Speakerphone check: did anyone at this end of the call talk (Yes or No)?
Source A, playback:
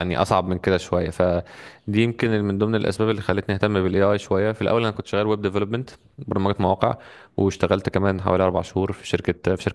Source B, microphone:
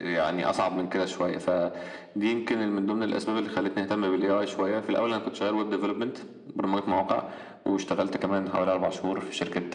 No